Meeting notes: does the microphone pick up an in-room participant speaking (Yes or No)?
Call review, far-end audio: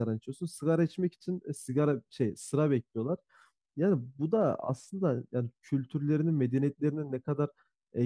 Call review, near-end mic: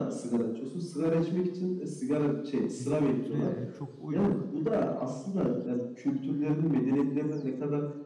Yes